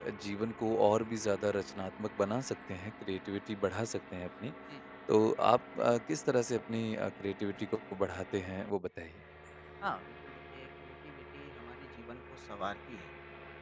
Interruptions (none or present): none